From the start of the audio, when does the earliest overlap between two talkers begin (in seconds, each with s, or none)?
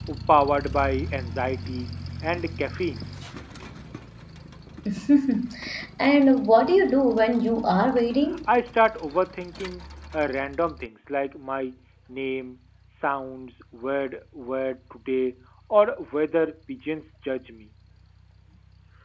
none